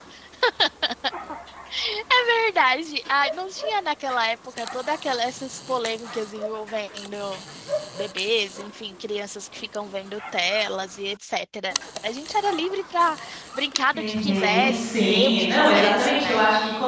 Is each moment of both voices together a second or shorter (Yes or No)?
No